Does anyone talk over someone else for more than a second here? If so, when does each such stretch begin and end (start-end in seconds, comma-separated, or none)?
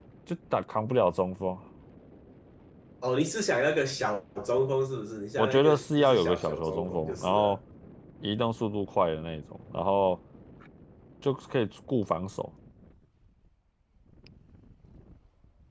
5.4-7.6